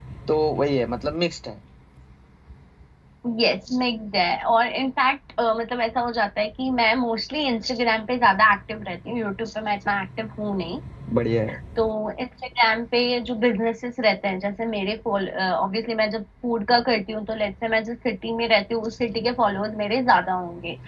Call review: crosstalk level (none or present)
none